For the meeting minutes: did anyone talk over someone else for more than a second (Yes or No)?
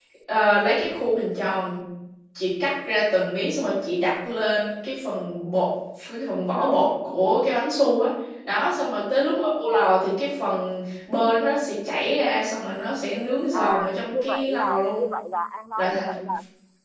Yes